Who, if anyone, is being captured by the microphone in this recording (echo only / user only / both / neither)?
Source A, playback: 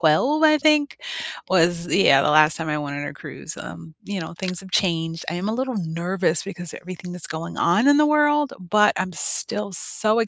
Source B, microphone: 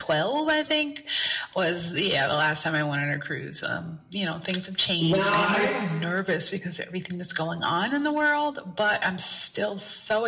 both